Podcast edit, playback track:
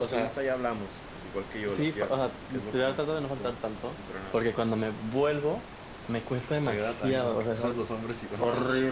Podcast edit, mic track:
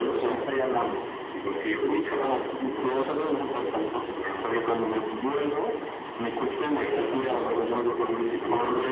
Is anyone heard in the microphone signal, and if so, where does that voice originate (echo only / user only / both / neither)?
echo only